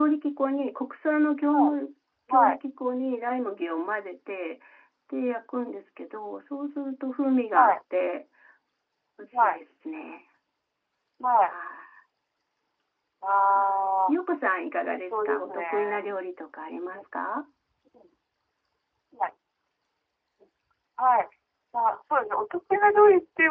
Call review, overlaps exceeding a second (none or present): present